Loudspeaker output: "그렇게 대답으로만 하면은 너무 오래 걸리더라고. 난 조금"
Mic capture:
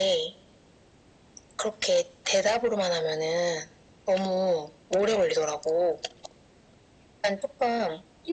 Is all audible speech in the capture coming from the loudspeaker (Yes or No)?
Yes